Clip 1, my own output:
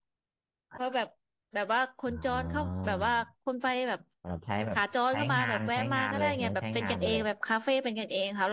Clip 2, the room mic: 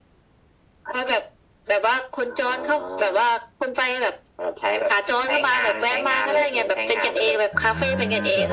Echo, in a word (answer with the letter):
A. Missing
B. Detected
B